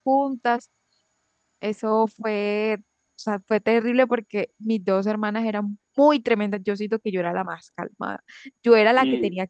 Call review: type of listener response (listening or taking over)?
listening